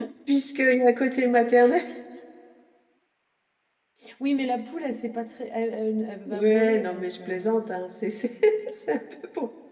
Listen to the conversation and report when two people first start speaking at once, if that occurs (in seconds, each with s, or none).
6.3 s